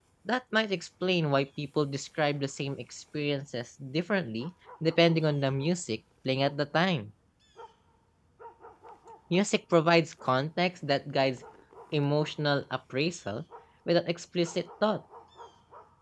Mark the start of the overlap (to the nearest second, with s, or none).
none